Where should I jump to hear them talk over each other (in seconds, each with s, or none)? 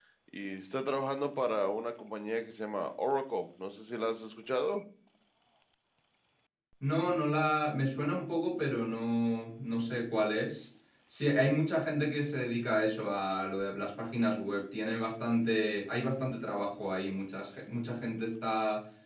none